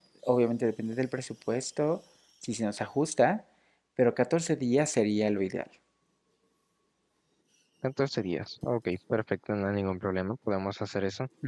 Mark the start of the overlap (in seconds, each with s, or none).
none